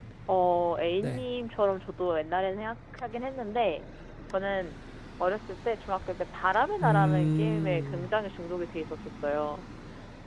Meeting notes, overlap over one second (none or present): present